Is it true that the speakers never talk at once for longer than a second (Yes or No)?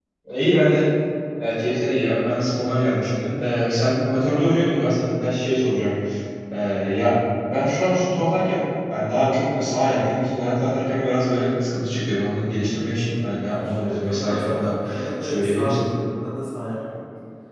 No